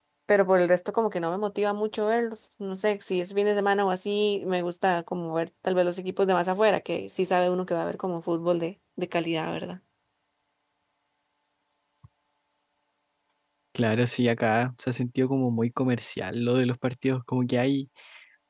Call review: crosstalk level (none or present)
none